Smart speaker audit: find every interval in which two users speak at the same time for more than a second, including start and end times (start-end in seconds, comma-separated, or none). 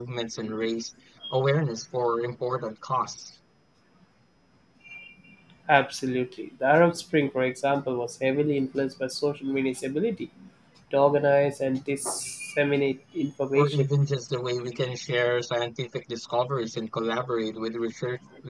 none